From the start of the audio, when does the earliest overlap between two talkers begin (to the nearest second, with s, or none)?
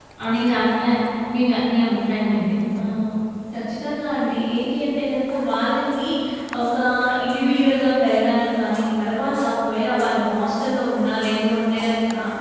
none